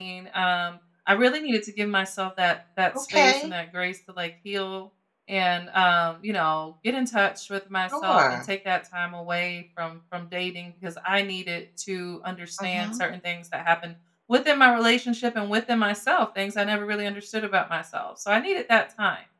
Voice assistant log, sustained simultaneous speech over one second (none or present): none